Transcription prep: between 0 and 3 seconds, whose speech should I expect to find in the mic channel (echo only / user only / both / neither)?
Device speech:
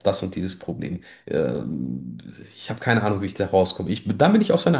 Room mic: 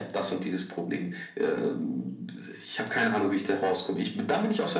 echo only